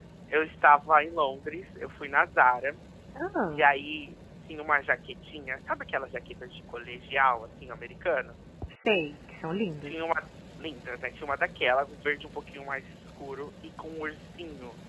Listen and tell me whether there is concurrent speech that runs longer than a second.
No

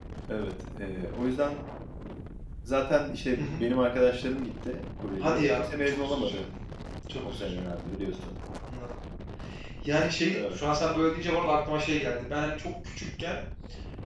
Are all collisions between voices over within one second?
No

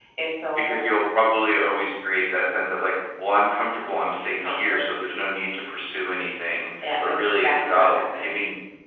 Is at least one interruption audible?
Yes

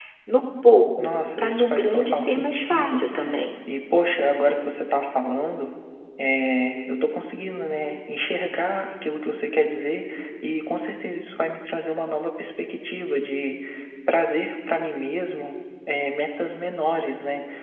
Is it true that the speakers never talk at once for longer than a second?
No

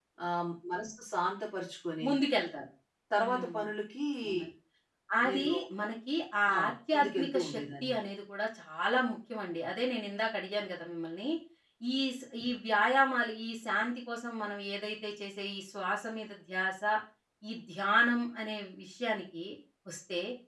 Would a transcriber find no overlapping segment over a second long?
No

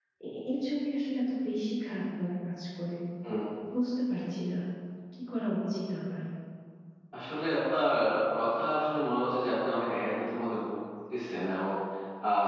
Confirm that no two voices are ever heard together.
Yes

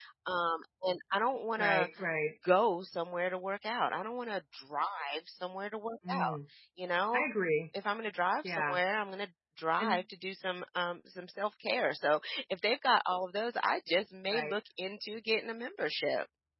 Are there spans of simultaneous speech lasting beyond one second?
No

